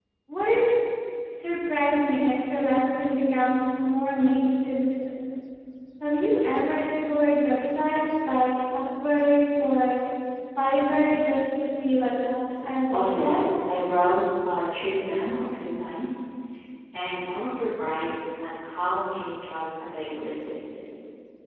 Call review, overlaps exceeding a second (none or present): none